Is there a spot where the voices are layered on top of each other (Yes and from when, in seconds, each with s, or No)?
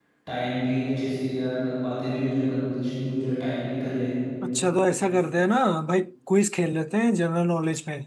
No